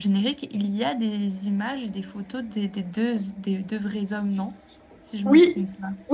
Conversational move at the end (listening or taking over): taking over